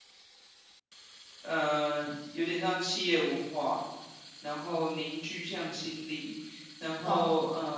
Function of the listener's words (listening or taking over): listening